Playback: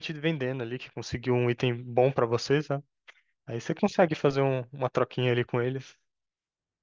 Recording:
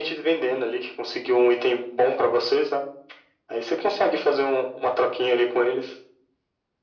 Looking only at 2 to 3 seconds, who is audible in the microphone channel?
echo only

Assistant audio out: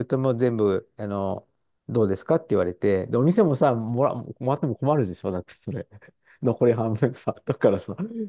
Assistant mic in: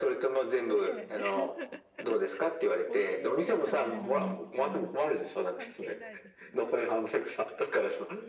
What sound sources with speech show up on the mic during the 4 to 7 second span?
both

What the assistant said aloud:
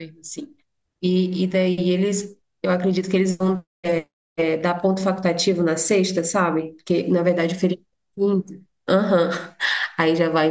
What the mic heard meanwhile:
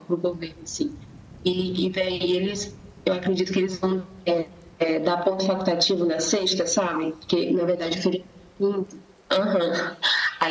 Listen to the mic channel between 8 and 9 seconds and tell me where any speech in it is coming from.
echo only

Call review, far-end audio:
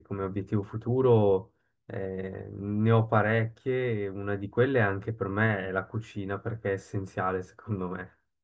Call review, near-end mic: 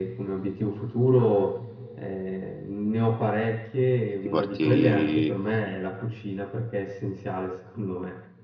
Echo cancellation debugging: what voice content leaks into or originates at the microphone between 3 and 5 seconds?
both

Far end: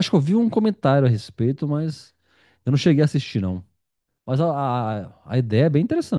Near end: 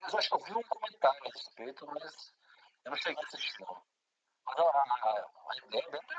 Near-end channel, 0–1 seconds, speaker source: echo only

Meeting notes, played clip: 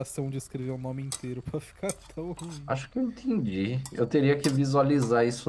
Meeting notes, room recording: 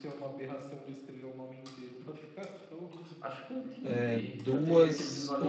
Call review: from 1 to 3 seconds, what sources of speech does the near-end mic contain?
echo only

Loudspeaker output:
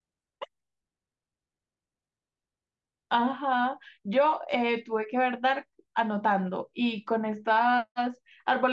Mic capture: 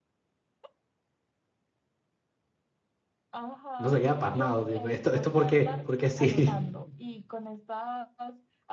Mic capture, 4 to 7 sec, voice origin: both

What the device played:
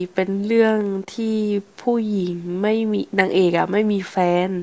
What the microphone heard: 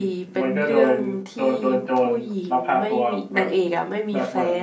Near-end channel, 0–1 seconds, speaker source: both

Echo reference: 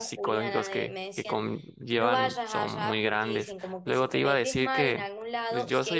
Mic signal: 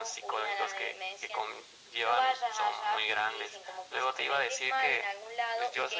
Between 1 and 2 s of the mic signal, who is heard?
echo only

